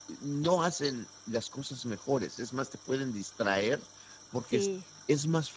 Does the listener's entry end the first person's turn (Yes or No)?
No